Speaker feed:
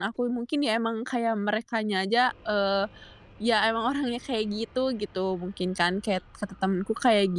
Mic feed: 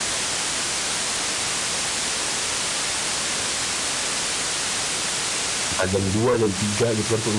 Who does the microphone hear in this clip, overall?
user only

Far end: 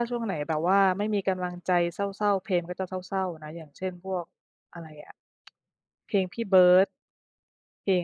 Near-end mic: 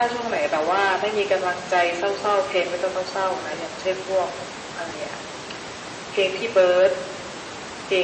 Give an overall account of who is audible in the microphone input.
echo only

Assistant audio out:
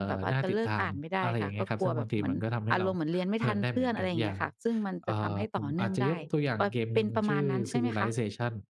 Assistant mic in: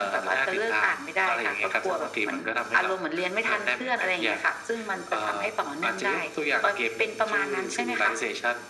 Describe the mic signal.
echo only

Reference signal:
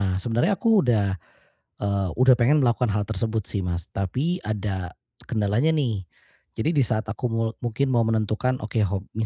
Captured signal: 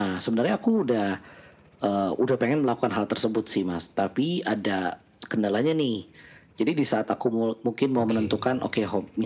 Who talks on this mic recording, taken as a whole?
both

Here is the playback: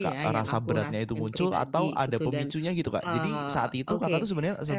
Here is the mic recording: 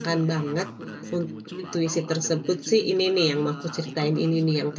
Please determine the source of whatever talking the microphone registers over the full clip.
both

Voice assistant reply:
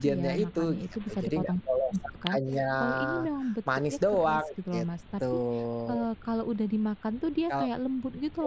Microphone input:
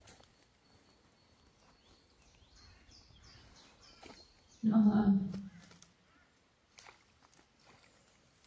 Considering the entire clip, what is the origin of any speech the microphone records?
user only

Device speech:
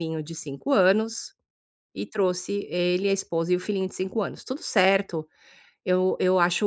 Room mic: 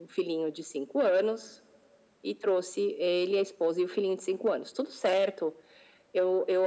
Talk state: echo only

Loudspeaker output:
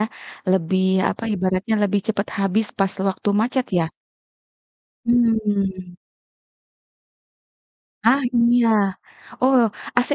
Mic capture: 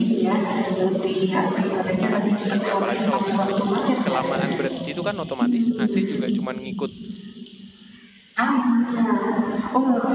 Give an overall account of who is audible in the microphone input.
both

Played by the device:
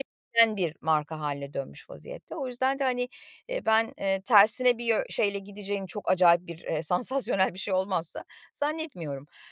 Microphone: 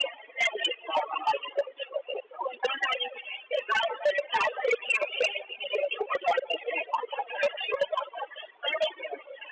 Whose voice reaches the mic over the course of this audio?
echo only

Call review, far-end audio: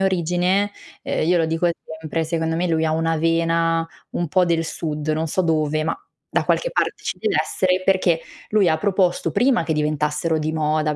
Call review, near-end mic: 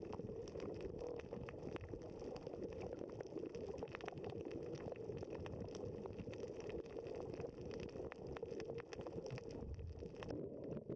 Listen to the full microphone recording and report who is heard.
neither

